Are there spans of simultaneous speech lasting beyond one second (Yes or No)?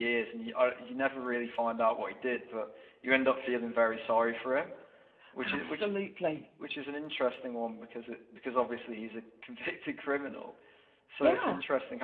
No